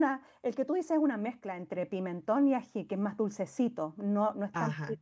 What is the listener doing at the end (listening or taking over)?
taking over